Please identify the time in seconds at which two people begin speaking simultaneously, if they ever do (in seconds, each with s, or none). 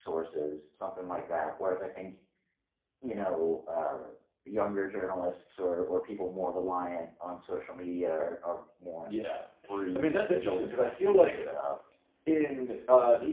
9.9 s